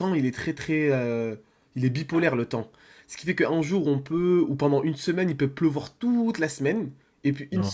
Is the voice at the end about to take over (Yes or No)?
No